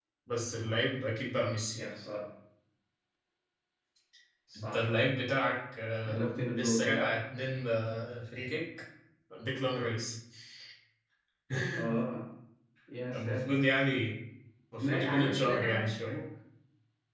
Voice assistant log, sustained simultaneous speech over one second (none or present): present